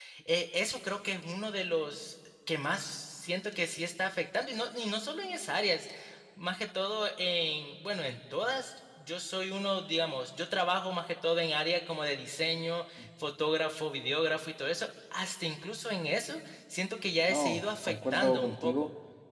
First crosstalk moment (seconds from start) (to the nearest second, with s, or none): 17 s